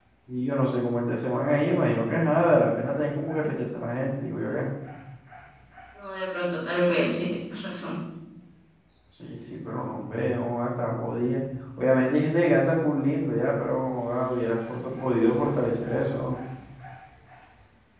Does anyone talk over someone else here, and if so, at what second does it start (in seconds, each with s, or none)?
none